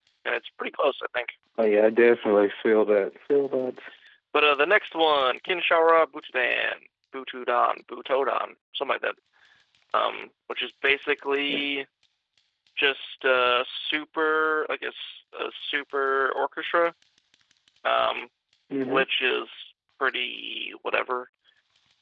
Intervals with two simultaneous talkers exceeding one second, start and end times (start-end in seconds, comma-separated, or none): none